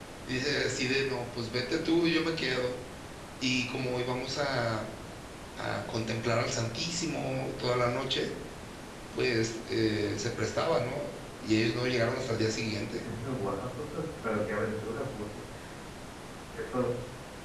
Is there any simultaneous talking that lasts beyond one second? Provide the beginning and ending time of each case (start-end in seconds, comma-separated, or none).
none